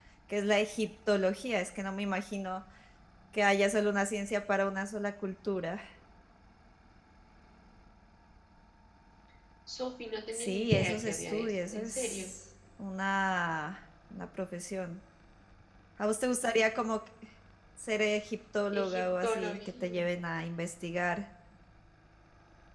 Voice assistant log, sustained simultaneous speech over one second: present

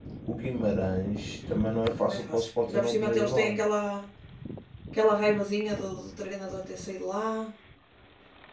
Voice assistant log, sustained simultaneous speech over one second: present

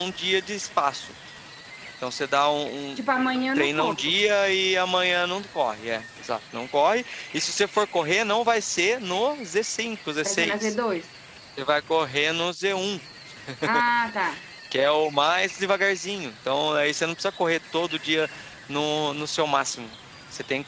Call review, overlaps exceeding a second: present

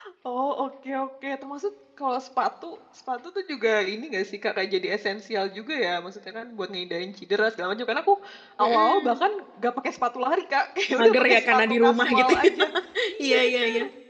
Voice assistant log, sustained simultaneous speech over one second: present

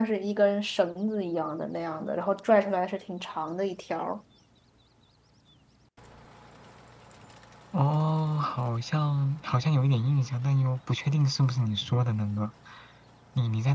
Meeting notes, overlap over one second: none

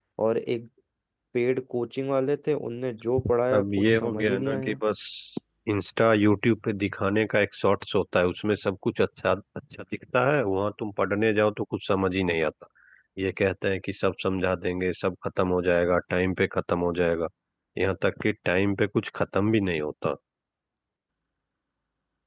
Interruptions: present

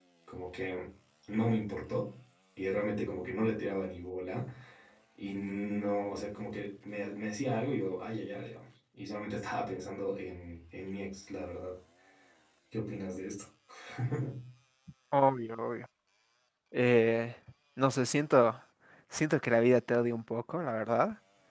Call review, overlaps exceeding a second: none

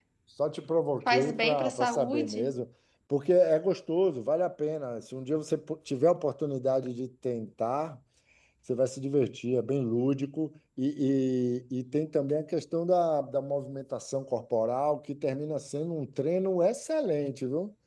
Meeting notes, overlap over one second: present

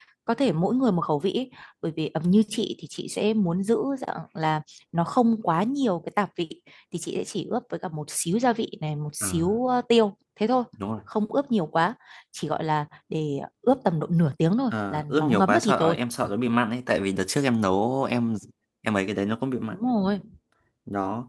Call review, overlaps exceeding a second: present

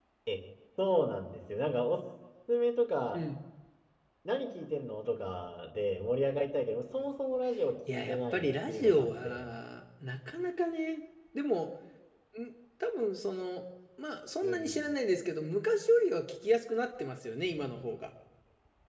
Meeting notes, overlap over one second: present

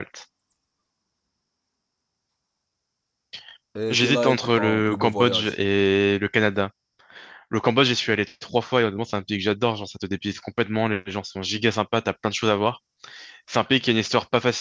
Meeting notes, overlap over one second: present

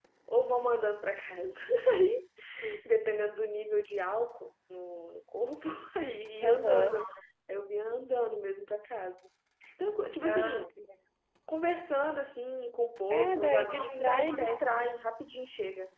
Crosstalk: present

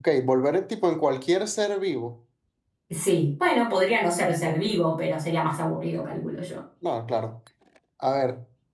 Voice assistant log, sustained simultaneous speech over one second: none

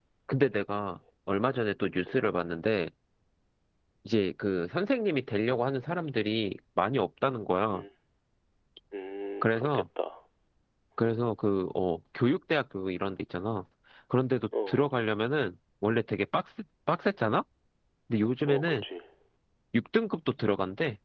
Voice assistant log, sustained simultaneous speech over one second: none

